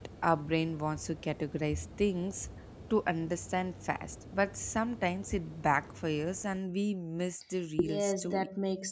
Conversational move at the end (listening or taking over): taking over